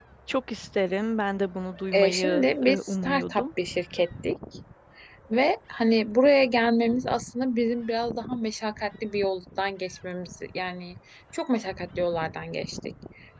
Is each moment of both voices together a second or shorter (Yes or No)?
No